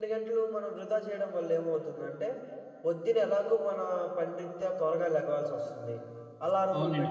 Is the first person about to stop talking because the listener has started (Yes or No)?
No